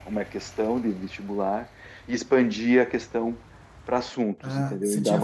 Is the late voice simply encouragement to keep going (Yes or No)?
No